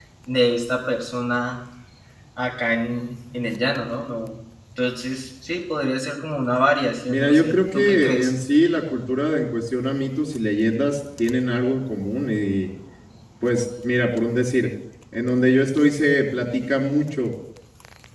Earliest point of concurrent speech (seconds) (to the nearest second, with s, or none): 7 s